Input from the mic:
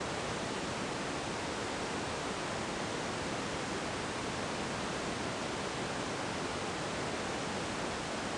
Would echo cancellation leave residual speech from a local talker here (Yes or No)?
No